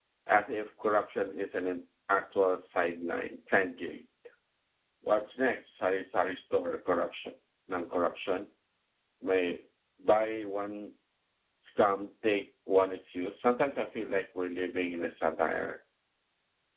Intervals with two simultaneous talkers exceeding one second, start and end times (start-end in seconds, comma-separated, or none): none